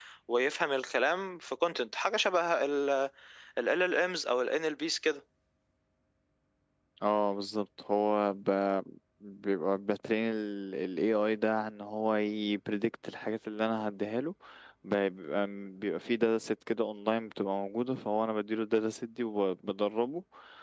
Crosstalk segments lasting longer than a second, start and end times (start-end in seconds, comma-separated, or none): none